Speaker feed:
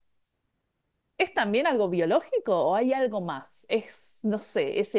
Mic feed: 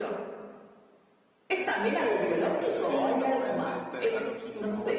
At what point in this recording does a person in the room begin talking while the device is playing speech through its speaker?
1.6 s

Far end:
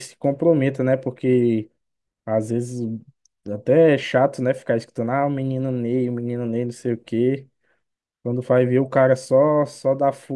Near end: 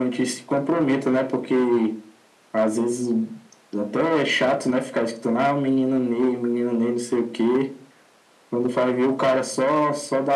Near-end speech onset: none

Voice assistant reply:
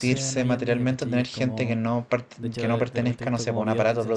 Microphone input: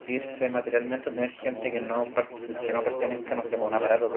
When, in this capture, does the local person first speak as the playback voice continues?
1.5 s

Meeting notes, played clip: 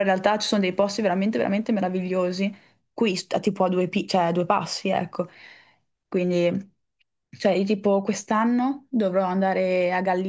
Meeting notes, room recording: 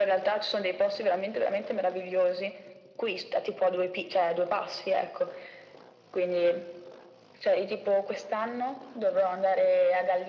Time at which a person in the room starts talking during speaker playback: none

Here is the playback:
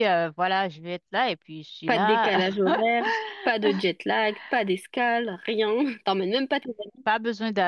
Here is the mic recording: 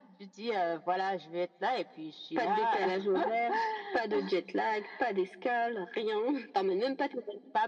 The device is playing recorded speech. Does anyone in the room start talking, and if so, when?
none

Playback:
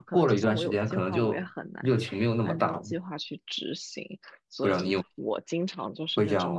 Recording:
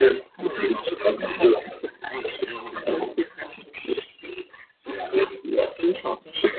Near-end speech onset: none

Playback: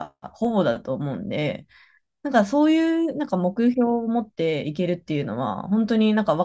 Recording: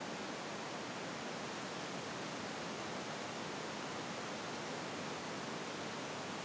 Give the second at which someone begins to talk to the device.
none

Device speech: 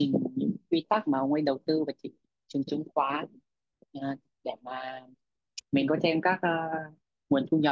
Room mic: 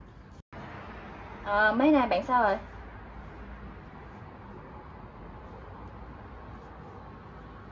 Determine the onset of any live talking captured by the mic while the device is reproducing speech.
1.4 s

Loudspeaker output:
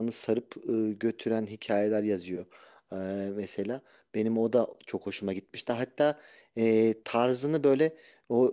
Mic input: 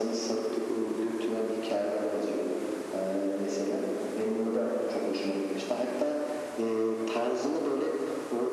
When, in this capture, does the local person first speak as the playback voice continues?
none

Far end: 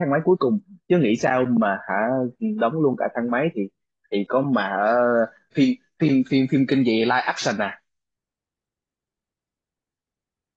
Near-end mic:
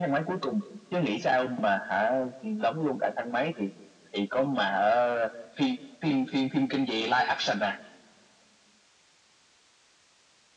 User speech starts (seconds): none

